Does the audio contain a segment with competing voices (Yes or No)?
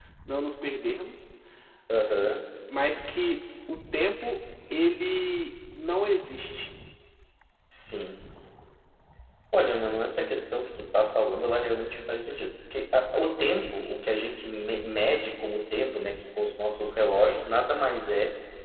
No